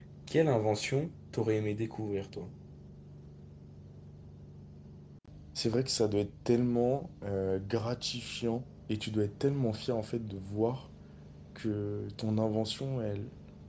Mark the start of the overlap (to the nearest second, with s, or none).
none